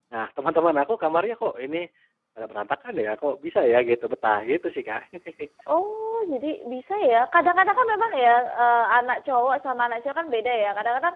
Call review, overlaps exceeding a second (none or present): none